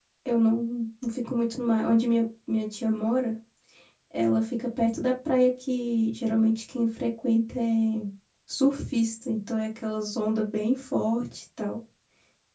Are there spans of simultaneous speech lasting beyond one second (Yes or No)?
No